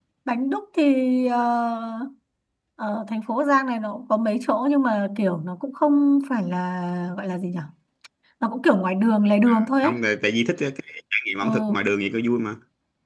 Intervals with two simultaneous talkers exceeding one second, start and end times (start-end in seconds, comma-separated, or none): none